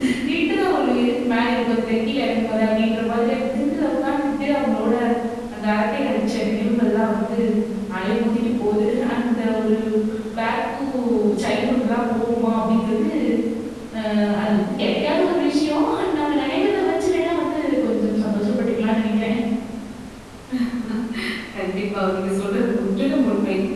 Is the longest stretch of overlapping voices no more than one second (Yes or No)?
Yes